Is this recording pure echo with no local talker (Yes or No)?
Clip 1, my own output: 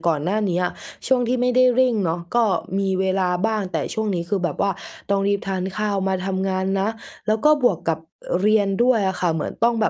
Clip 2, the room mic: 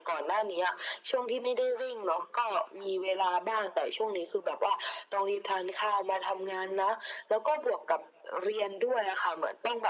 Yes